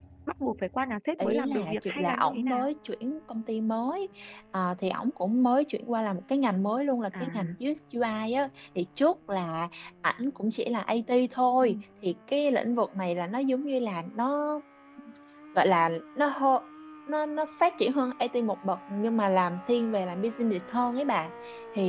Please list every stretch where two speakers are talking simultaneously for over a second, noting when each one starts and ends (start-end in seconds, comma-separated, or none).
1.2-2.7